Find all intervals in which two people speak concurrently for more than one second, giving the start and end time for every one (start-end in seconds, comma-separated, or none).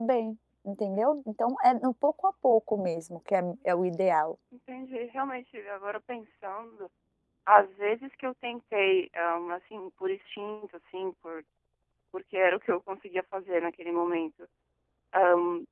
none